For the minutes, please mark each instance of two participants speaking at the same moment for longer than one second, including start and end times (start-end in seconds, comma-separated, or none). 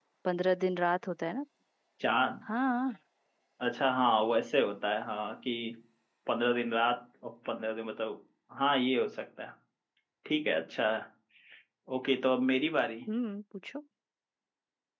none